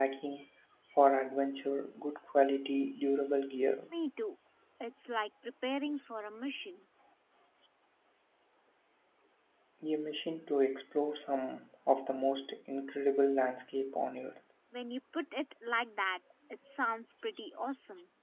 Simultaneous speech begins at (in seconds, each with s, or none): none